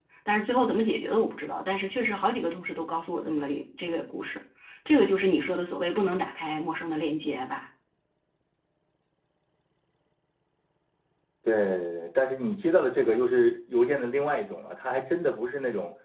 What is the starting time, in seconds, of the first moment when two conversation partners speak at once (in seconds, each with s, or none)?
none